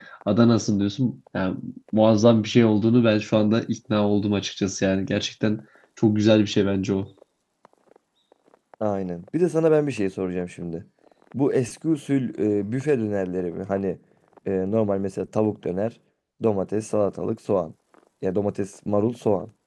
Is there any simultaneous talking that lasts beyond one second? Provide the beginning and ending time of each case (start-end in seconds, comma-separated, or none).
none